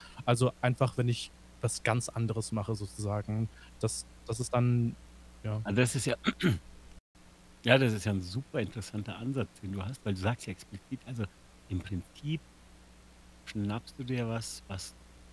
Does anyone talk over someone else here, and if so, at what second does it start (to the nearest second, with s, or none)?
none